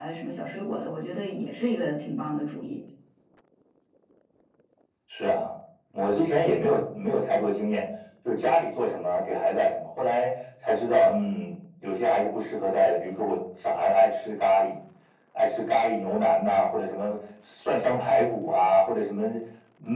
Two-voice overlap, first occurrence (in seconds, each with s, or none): none